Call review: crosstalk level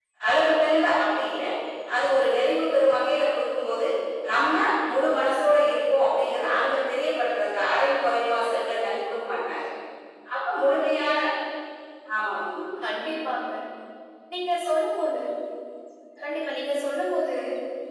none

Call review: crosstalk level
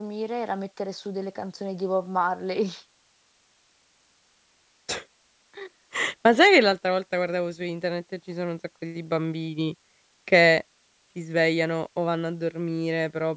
none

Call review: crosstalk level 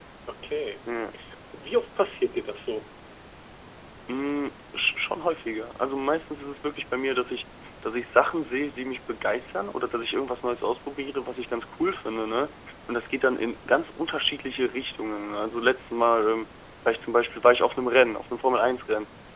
none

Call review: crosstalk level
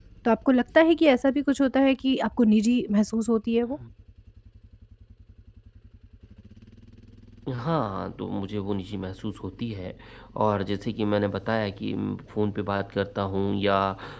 none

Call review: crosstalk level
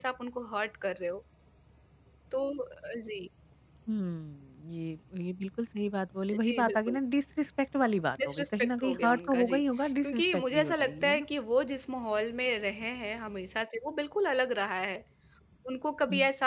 present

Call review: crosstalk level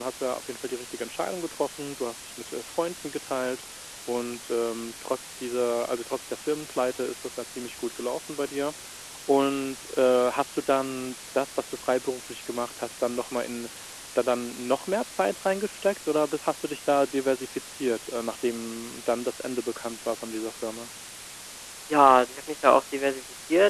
none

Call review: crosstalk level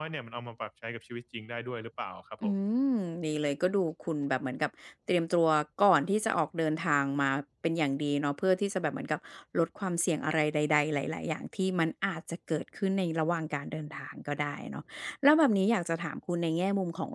none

